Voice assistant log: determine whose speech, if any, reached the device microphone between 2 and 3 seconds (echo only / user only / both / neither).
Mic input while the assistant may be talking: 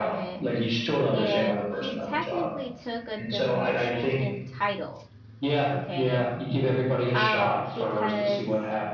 both